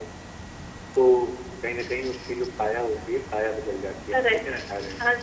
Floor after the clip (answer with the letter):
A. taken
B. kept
A